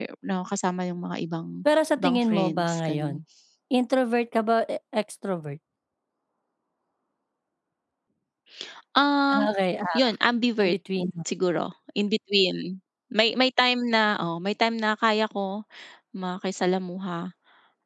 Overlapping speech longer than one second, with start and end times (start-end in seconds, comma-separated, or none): 2.0-3.2